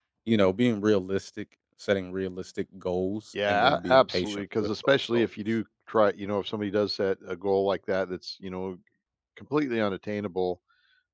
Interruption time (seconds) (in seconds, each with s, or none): 3.4 s